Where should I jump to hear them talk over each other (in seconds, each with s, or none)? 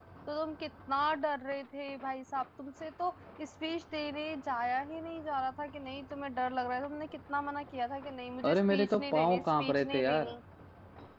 8.4 s